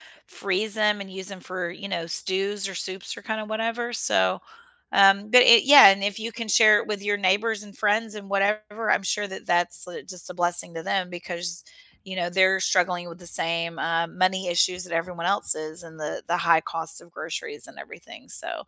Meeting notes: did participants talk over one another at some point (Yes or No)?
No